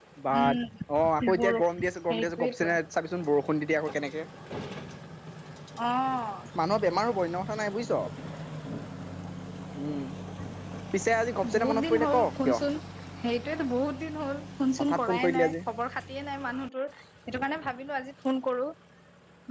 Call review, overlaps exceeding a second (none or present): present